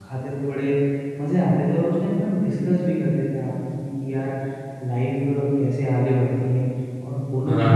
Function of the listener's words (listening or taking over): listening